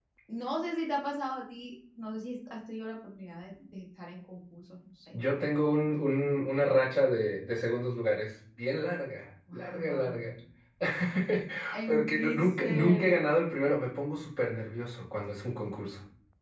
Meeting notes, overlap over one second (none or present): present